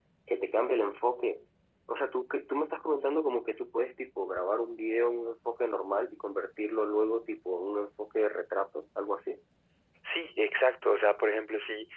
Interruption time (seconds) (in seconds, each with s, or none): none